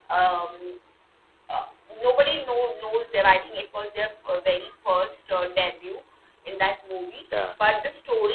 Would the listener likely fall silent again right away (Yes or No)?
Yes